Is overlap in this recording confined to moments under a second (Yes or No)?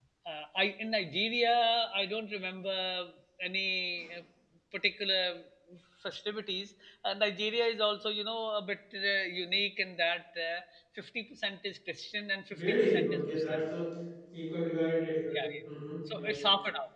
No